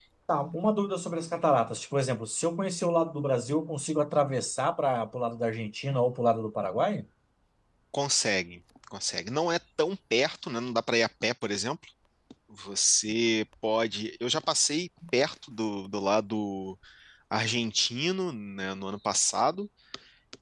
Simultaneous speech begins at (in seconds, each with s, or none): none